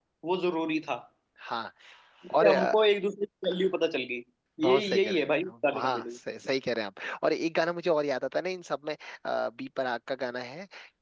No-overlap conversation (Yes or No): No